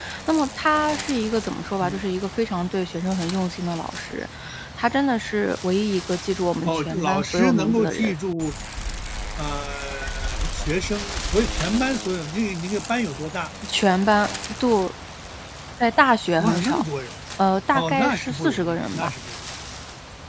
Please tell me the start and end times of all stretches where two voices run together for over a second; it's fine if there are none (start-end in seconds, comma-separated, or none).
6.7-8.1, 17.7-19.1